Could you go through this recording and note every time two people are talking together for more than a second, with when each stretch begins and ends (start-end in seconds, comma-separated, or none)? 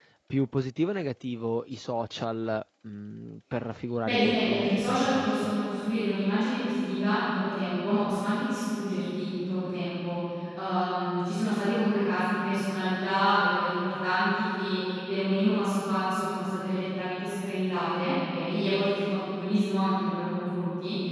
4.0-5.5